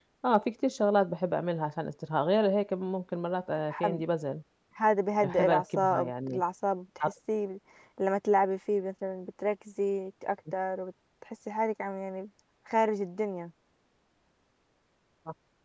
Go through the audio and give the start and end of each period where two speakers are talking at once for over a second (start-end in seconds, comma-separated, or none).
5.2-6.4